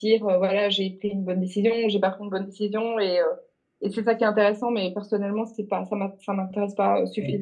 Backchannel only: No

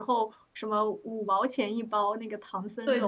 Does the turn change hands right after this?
Yes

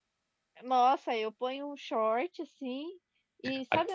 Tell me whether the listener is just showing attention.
Yes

